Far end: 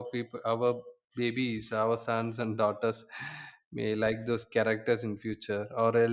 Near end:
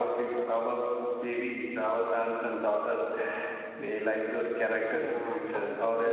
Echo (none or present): present